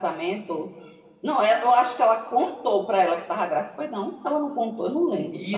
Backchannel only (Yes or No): No